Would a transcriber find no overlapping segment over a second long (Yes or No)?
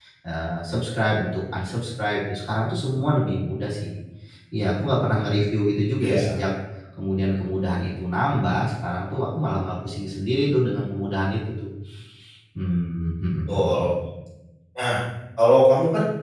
Yes